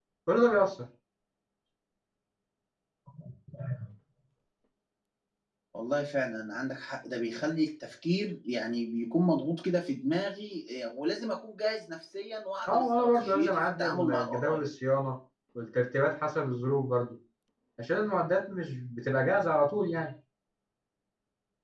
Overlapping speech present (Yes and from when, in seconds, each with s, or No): Yes, from 12.7 s